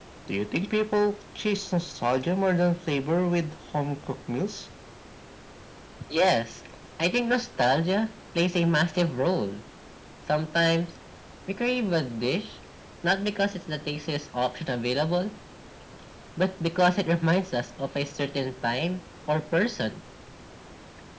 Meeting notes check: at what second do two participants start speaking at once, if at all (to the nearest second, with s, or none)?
none